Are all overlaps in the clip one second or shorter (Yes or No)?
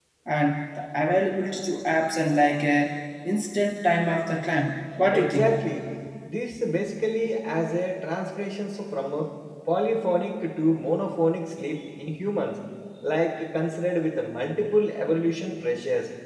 Yes